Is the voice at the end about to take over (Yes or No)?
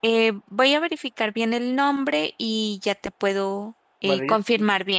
Yes